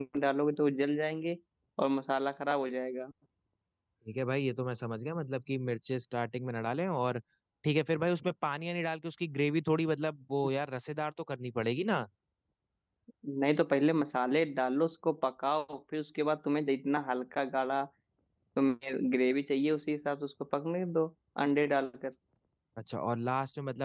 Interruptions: none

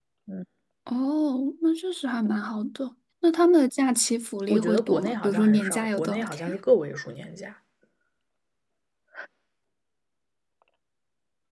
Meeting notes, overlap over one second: present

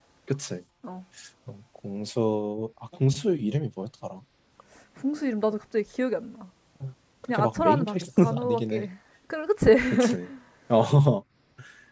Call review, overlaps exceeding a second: present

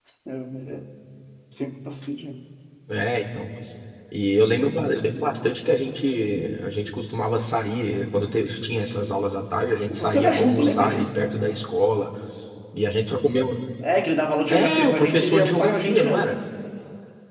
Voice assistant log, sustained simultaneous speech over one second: present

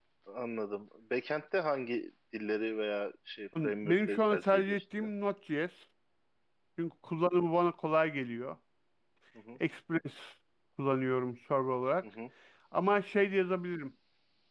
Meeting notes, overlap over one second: present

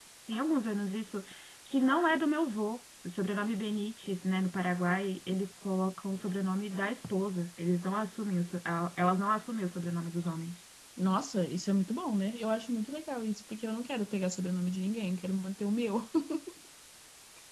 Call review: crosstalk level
none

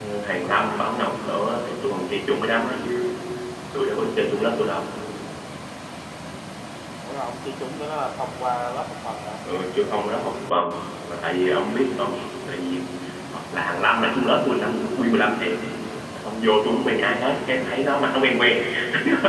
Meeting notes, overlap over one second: none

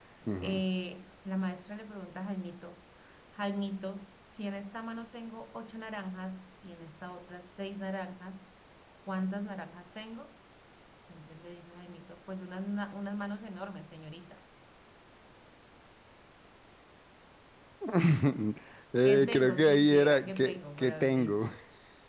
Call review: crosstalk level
present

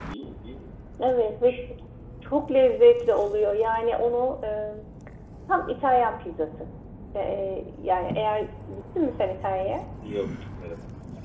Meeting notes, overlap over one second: none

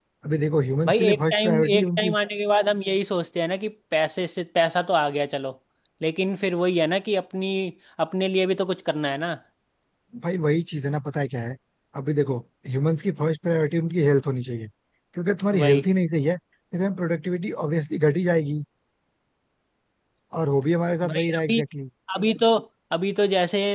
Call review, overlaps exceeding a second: present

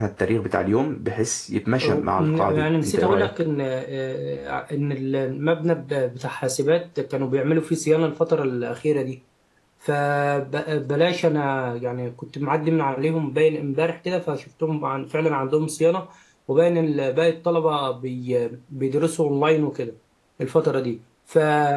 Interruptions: present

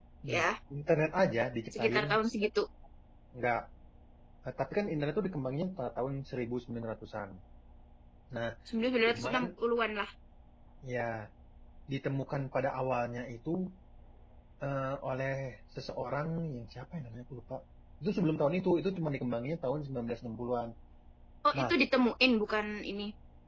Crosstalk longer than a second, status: none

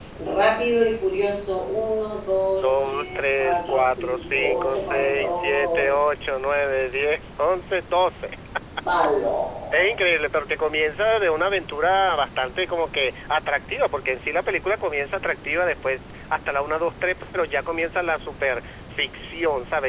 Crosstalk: present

